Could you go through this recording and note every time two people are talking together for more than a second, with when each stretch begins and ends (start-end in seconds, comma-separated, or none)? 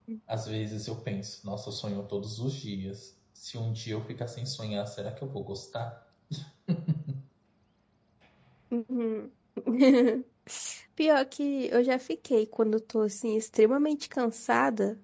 none